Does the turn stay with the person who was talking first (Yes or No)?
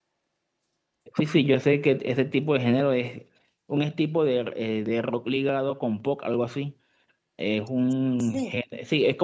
Yes